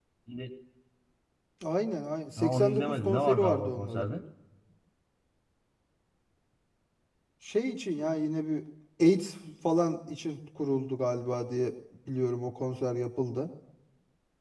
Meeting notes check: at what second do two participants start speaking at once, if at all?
2 s

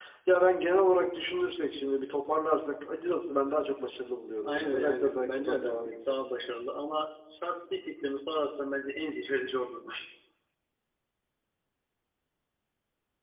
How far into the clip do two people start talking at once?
4 s

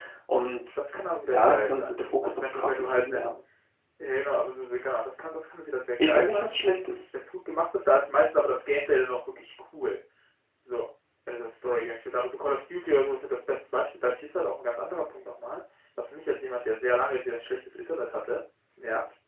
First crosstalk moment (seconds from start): 1 s

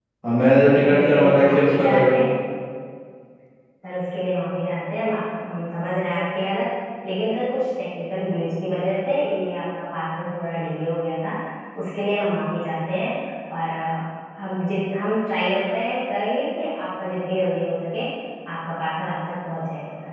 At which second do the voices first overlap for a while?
1 s

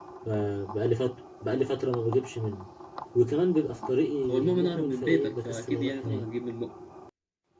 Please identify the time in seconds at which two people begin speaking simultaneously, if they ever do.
4 s

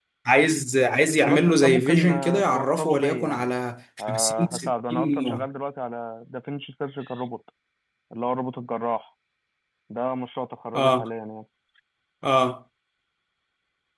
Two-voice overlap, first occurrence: 1 s

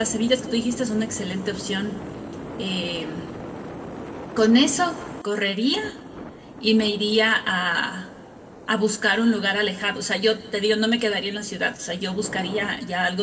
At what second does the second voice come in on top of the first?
none

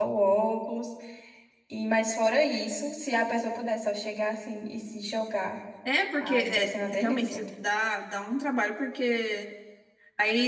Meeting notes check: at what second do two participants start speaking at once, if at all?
6 s

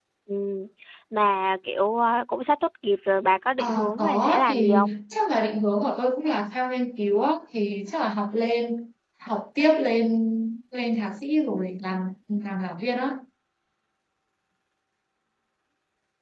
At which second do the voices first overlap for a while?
4 s

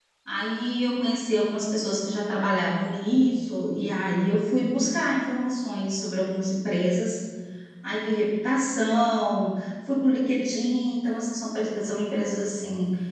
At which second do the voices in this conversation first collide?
none

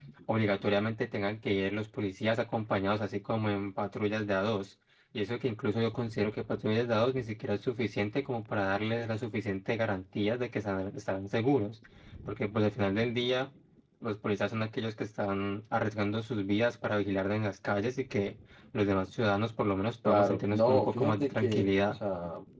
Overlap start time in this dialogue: 20 s

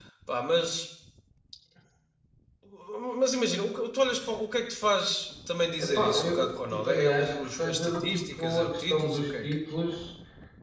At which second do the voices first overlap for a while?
6 s

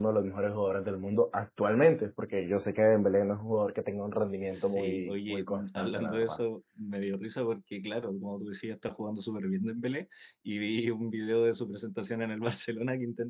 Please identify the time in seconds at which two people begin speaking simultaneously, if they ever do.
5 s

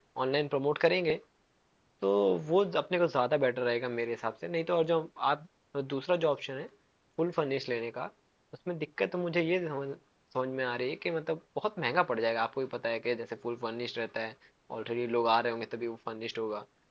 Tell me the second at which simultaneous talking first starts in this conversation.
none

